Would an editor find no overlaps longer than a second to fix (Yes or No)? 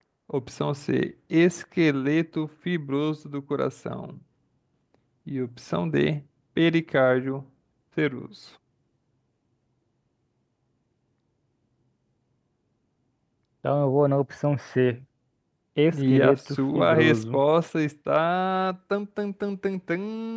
No